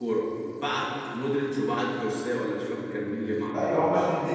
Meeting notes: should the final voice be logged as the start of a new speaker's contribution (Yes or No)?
Yes